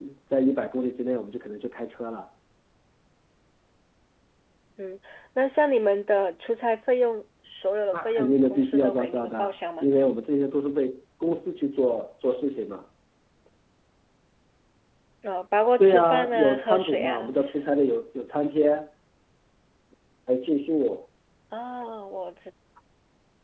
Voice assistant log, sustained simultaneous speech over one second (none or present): present